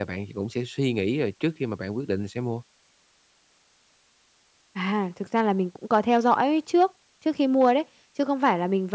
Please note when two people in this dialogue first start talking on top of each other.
none

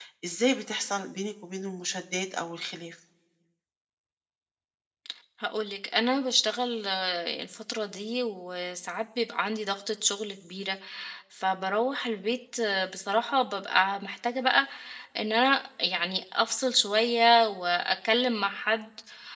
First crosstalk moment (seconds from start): none

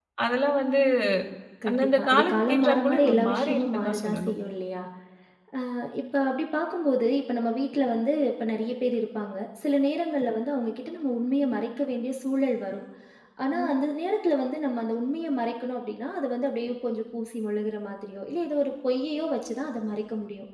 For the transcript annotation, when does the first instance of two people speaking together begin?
1.7 s

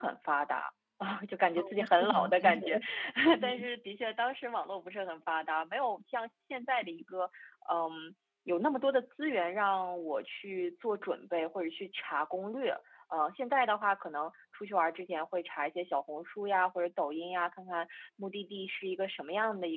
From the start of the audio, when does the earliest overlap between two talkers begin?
1.6 s

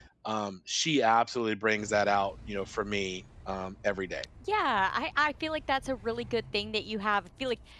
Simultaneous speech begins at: none

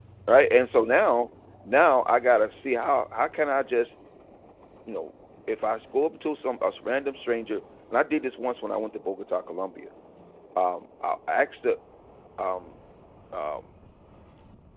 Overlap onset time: none

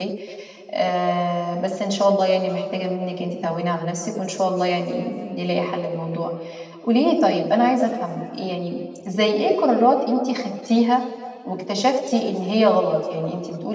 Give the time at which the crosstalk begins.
none

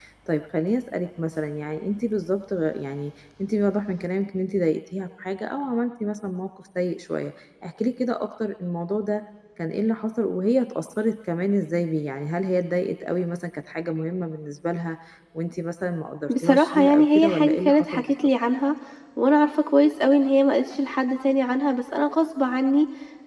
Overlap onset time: 16.3 s

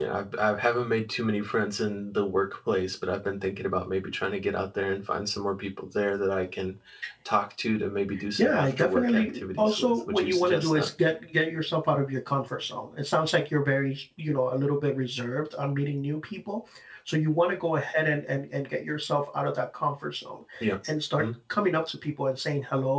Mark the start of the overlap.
8.4 s

